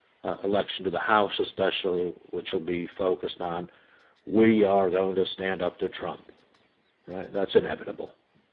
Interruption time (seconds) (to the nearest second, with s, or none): none